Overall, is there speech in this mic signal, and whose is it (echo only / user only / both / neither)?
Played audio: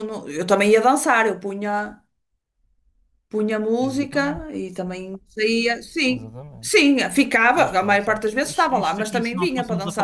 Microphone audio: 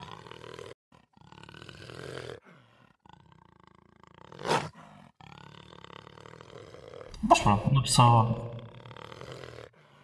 user only